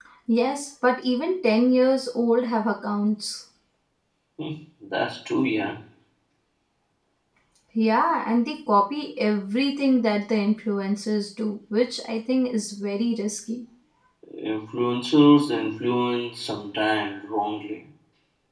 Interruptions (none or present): none